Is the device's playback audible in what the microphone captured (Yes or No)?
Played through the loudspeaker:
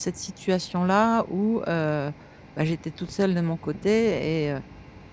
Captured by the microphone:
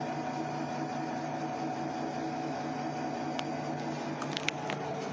No